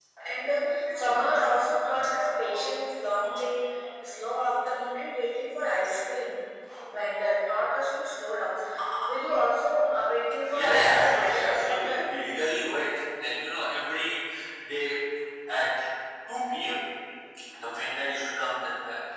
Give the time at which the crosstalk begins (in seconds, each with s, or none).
10.5 s